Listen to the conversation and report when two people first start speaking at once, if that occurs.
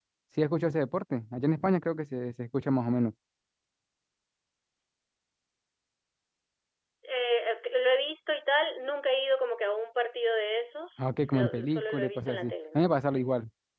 11 s

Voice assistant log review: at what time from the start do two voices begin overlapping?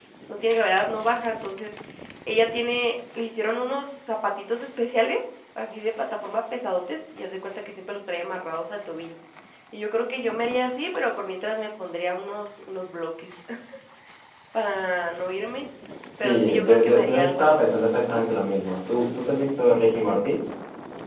16 s

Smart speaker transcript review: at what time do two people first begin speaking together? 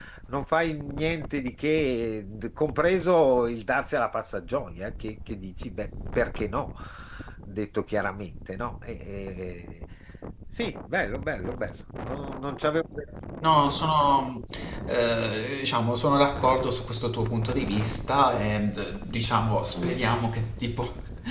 none

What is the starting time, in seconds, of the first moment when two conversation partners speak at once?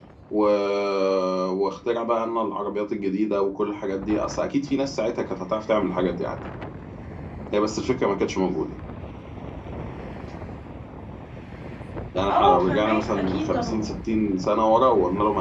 12 s

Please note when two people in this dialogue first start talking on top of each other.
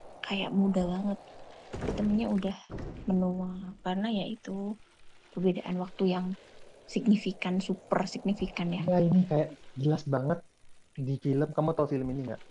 none

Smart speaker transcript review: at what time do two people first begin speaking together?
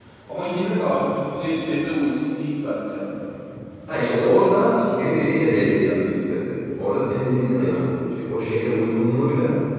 4 s

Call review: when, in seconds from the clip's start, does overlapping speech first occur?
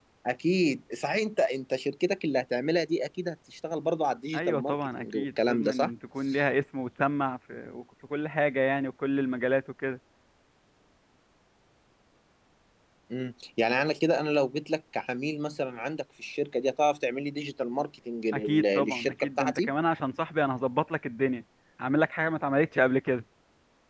4 s

